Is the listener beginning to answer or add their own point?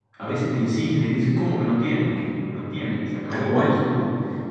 No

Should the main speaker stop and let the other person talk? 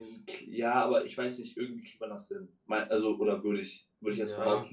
Yes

